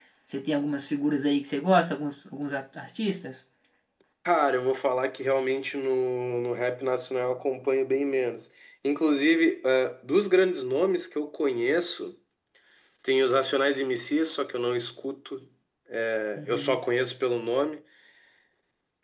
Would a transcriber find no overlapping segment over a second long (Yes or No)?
Yes